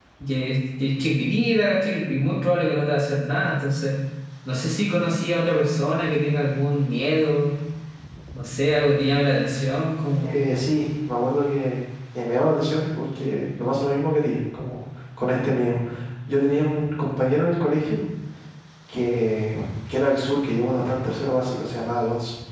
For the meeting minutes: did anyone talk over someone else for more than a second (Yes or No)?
No